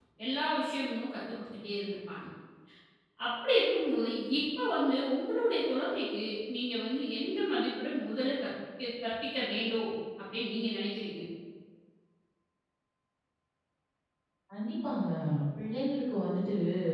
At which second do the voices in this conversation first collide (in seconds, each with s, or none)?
none